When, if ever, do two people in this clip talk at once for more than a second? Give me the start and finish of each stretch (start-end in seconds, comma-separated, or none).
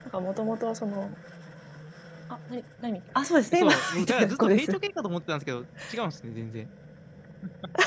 3.5-4.7